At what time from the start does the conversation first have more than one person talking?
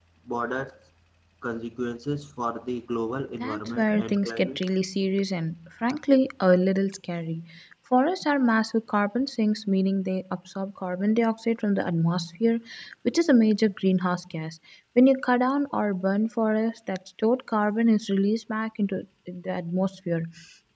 3.4 s

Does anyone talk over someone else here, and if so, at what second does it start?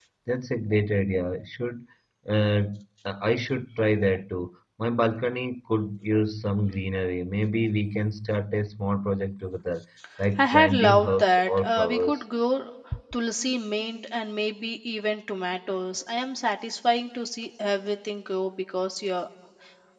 10.4 s

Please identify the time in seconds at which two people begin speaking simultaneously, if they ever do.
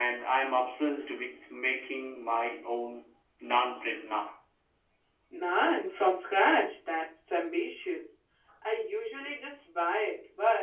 none

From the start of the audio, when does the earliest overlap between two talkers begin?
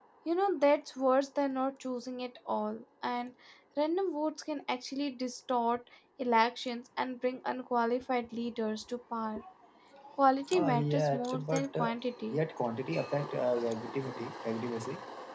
10.5 s

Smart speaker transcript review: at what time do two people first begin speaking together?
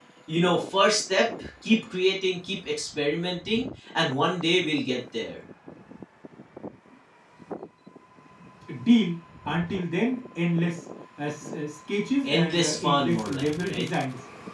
12.2 s

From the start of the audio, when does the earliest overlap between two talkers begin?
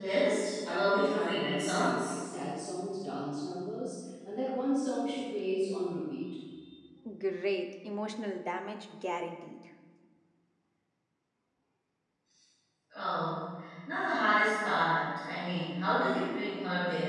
0.7 s

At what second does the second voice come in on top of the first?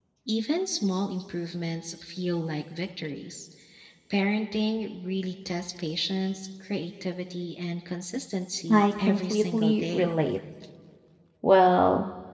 8.7 s

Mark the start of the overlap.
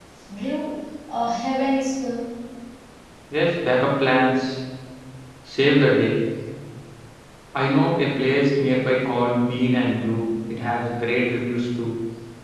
none

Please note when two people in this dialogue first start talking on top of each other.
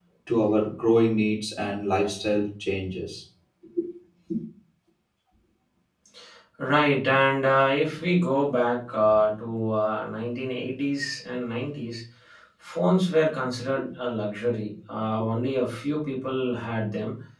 none

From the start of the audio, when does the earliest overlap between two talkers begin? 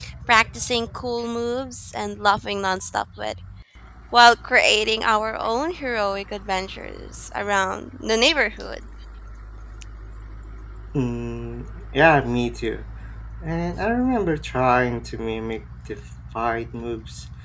none

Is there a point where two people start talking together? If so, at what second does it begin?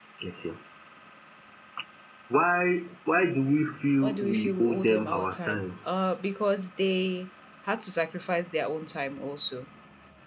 4.0 s

